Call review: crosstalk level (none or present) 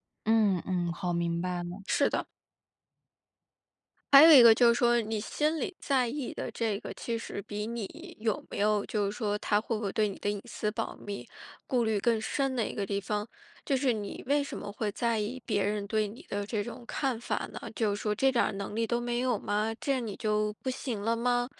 none